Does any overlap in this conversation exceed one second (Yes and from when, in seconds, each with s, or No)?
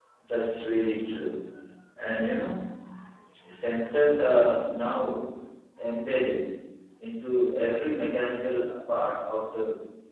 No